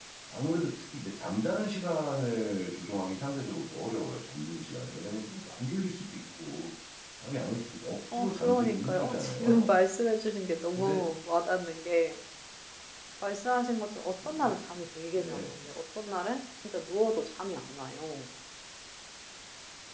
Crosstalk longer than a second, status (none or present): present